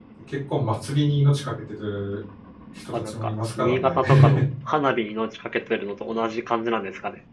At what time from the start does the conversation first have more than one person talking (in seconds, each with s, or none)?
2.9 s